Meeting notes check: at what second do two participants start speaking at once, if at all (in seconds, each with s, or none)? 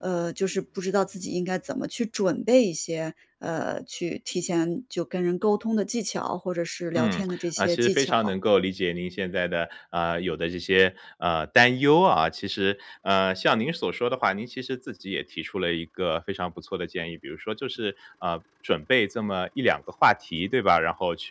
7.0 s